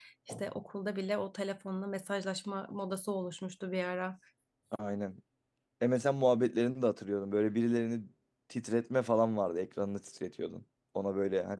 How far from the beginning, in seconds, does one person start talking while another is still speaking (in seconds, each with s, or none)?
none